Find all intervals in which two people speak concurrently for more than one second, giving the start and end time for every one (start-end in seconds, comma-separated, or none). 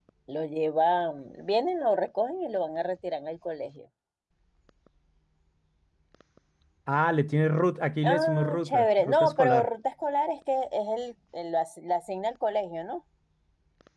8.0-9.7